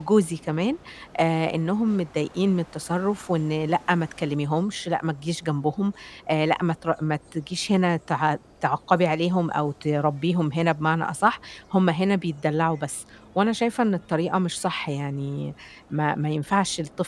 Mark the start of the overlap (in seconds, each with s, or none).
none